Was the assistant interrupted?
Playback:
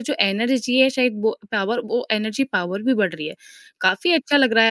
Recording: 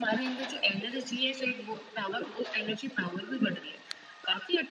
No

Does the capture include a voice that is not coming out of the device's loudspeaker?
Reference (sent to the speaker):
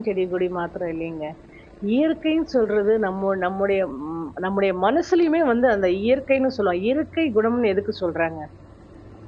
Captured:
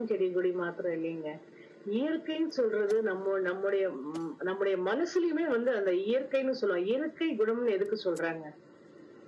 No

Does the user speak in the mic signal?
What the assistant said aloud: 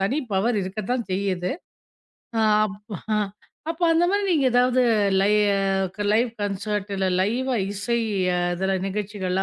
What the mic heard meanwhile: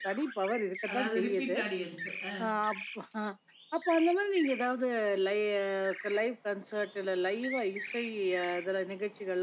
Yes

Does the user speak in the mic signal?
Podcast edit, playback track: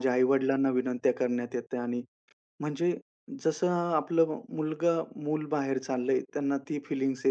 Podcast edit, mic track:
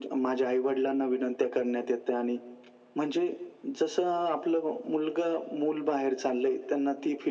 No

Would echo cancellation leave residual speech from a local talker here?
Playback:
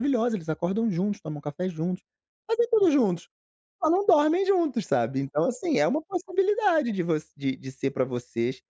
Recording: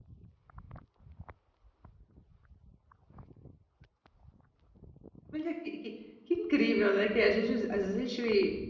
Yes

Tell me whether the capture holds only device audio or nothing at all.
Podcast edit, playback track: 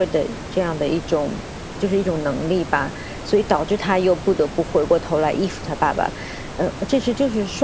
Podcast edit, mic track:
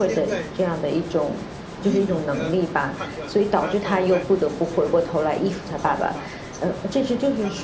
No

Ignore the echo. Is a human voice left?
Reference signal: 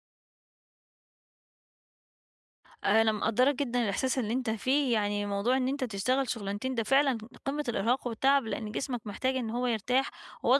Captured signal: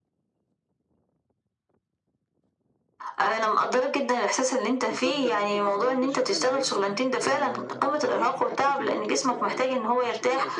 Yes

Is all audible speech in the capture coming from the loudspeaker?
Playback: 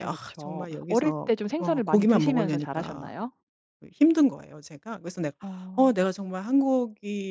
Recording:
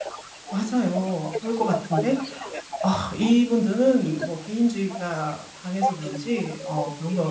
No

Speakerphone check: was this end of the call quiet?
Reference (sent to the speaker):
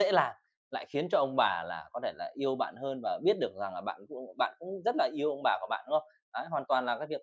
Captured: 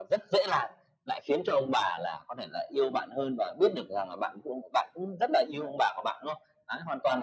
Yes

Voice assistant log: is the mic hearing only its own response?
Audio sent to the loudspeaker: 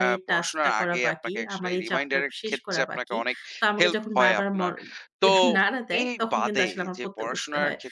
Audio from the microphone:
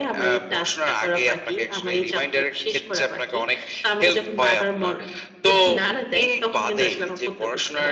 Yes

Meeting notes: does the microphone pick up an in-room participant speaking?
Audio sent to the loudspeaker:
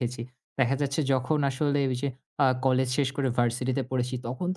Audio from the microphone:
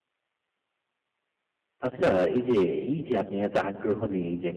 Yes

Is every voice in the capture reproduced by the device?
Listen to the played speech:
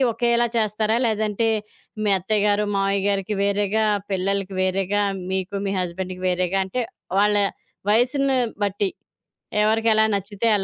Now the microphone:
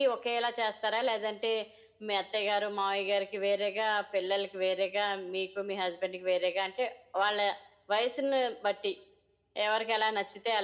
Yes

